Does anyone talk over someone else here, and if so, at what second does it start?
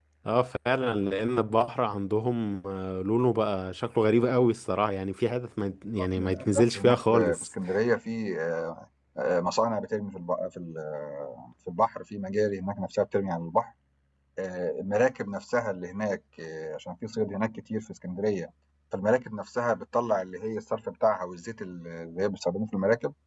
6 s

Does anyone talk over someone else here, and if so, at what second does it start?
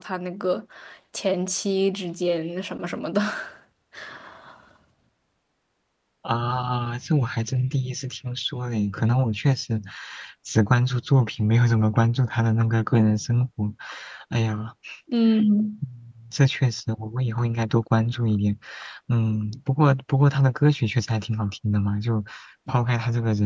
none

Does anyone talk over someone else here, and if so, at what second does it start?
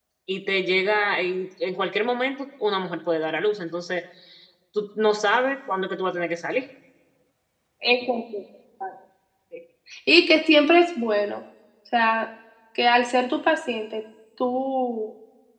none

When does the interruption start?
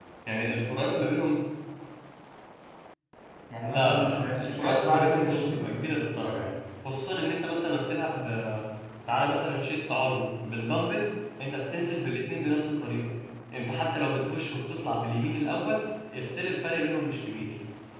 4 s

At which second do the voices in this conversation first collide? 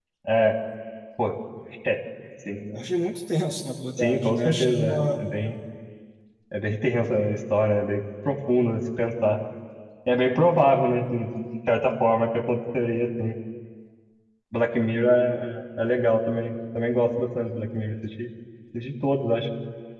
4 s

